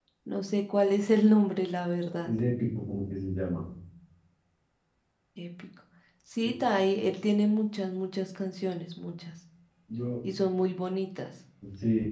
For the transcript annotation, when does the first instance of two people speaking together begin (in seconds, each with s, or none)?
none